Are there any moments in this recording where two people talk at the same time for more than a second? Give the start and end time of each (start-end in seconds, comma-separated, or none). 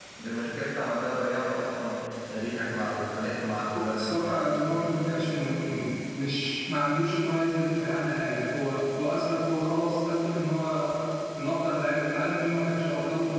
3.7-5.0